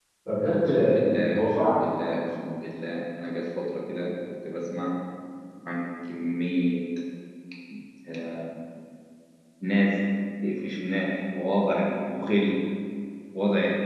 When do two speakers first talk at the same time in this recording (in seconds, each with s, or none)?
0.6 s